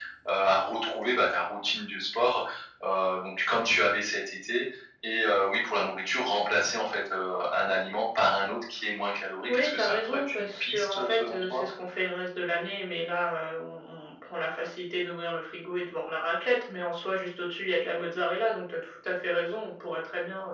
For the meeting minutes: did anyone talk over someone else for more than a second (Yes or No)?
Yes